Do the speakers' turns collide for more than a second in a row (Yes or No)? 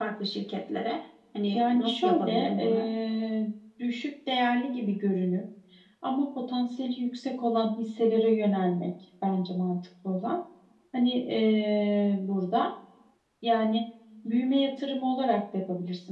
Yes